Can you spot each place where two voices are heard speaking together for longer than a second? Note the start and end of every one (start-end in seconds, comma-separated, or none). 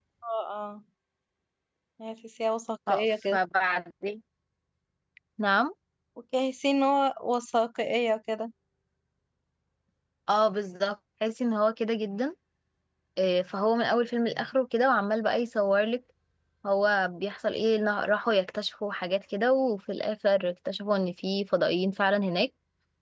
none